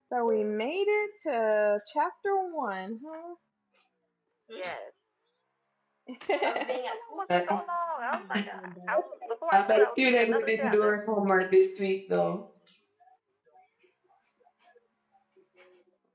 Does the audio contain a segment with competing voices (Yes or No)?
Yes